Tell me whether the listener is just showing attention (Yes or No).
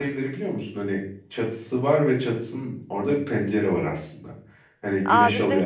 No